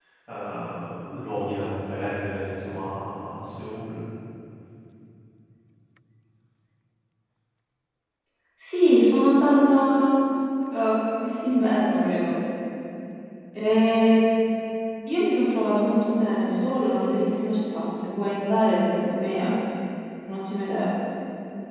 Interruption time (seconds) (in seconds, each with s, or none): none